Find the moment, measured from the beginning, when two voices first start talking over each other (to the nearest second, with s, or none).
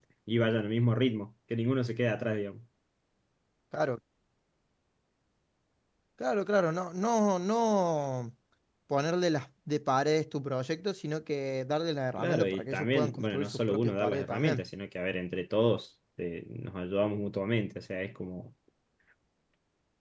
12 s